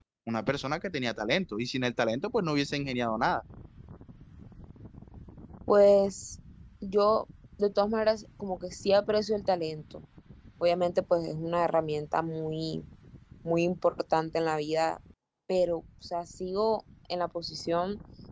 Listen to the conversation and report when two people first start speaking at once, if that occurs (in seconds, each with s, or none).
none